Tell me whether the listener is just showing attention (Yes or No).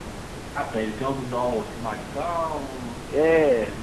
No